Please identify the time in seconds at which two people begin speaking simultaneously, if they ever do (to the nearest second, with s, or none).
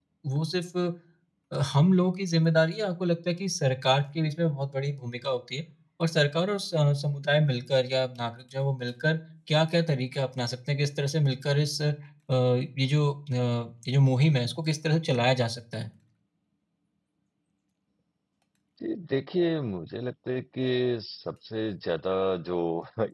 none